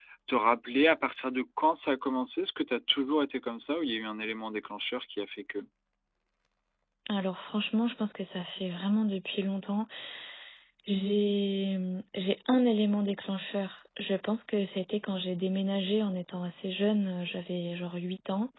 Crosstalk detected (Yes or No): No